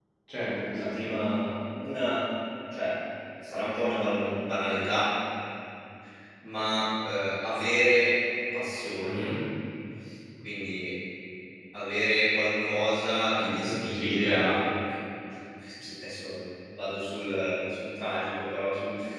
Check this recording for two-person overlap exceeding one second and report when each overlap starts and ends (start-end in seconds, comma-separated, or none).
13.4-14.6